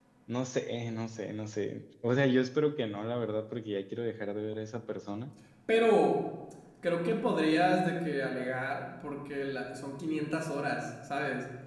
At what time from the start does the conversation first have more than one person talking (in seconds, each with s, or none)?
none